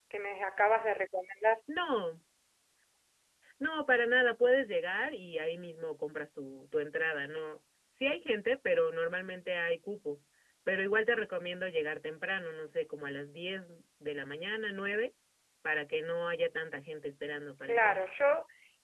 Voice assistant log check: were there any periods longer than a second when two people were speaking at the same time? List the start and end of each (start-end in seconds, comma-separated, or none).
none